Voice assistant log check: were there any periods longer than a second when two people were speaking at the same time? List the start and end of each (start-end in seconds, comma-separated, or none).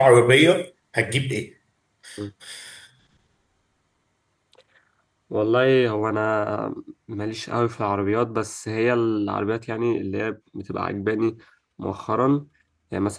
none